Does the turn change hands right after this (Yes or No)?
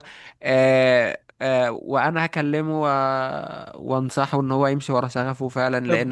No